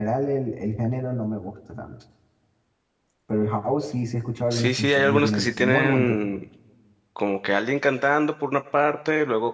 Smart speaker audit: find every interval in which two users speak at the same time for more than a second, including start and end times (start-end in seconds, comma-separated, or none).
4.5-6.4